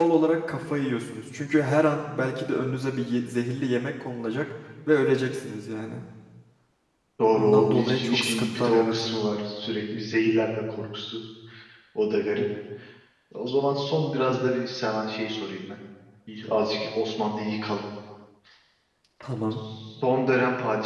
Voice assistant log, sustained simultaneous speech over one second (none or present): present